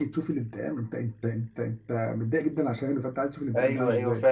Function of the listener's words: taking over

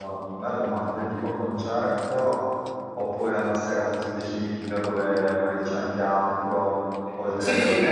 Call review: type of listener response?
taking over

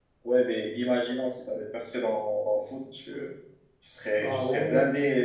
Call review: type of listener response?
listening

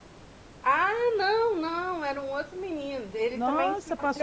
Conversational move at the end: taking over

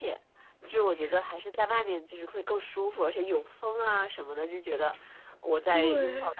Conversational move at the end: listening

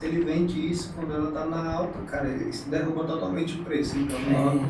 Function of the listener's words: taking over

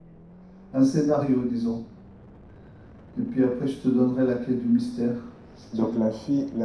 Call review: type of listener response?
taking over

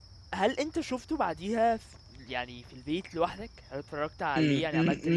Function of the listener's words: taking over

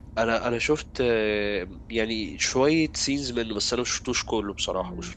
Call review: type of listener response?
taking over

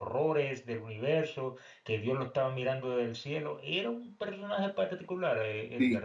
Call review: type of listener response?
taking over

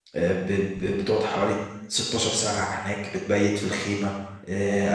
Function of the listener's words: listening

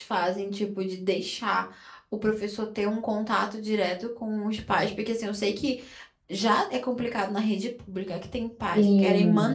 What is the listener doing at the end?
listening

